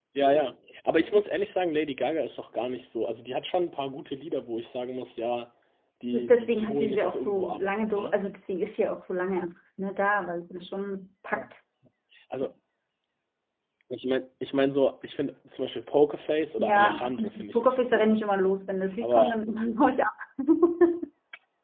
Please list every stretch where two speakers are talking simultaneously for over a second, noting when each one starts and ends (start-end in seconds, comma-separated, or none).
6.1-8.1, 16.6-18.2